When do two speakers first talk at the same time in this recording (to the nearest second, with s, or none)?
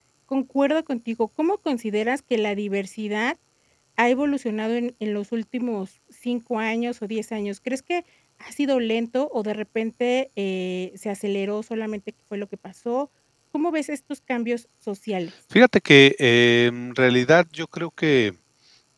none